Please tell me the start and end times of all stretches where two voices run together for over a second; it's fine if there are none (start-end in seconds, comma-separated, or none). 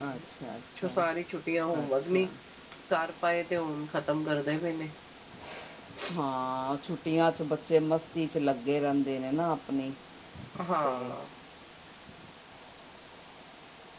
none